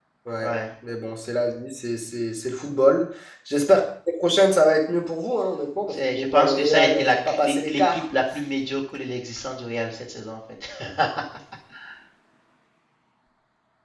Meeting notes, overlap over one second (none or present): present